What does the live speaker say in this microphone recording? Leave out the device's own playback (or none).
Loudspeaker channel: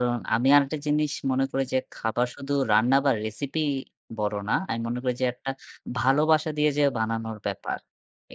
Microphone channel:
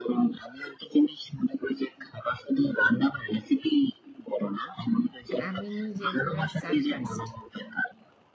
And আমি নিজে পুরা surprised